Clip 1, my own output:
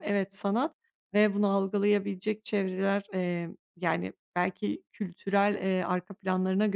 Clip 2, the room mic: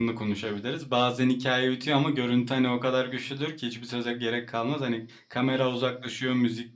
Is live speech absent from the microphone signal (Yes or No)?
No